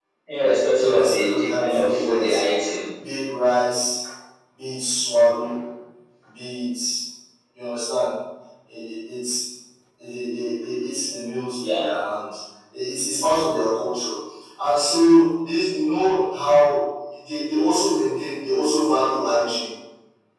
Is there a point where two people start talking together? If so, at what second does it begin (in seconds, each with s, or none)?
0.7 s